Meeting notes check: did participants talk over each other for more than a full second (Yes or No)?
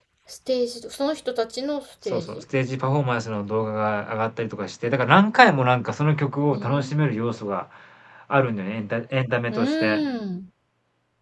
No